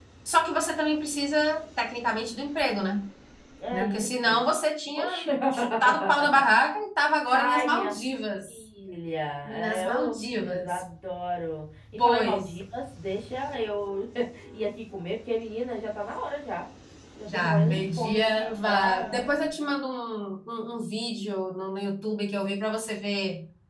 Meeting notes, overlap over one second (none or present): present